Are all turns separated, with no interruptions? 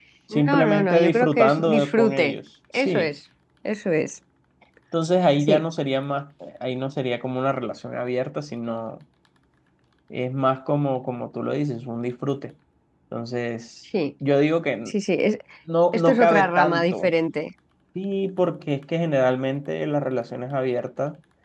No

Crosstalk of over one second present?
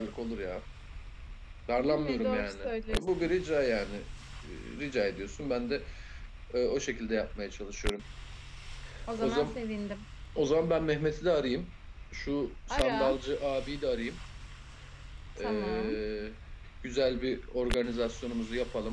Yes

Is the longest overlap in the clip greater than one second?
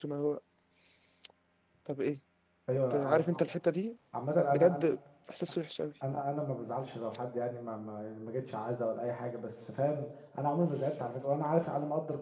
No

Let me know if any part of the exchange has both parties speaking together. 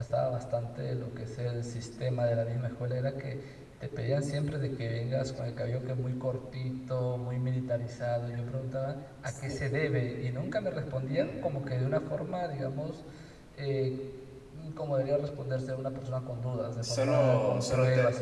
Yes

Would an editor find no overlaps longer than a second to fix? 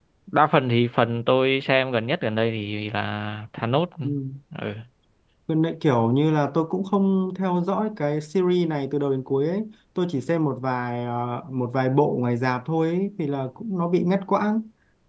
Yes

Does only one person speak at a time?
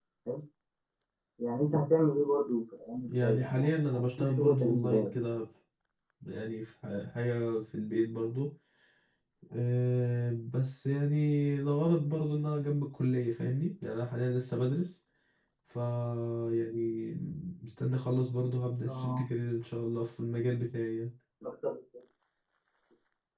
No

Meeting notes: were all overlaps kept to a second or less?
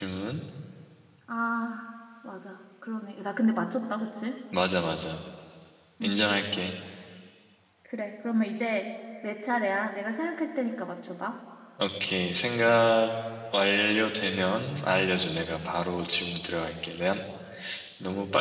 Yes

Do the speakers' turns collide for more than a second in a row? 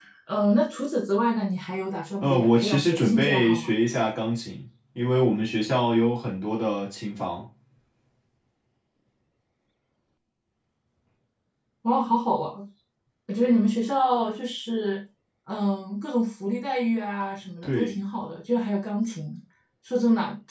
Yes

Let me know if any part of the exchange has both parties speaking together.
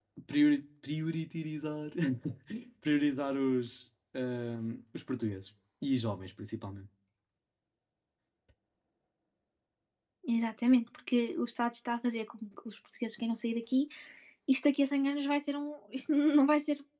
No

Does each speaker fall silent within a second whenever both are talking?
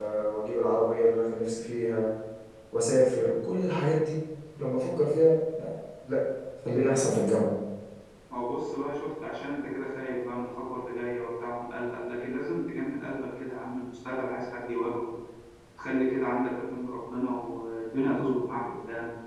Yes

